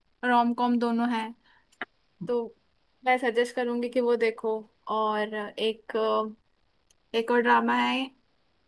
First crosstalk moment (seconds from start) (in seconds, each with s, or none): none